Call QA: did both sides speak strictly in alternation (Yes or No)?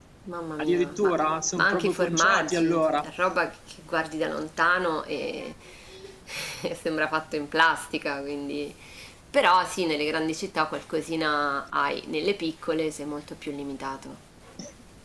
No